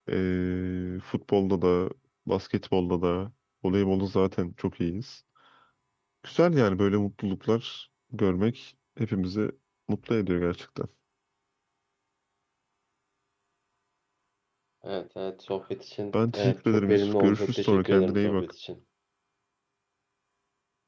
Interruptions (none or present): present